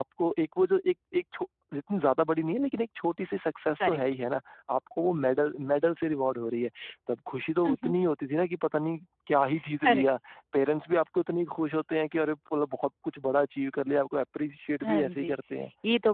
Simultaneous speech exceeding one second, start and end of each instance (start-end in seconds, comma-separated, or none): none